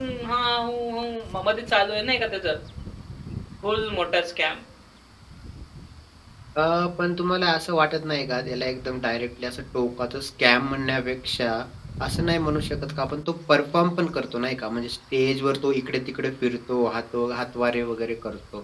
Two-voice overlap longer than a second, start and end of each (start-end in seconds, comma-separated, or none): none